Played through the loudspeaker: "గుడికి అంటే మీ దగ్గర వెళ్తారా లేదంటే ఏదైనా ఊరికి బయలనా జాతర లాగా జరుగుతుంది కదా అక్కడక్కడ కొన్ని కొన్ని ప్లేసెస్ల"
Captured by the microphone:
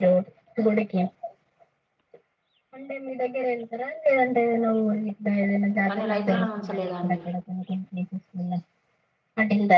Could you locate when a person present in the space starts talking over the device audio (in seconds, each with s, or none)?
5.9 s